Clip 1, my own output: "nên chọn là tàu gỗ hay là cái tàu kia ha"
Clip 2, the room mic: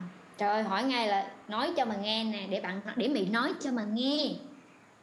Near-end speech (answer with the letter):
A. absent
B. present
B